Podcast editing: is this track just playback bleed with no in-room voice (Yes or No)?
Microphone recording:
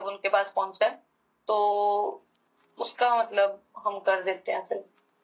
Yes